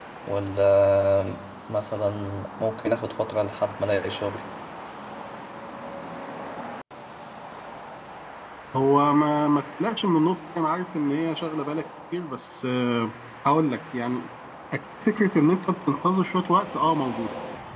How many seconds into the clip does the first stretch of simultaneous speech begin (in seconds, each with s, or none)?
none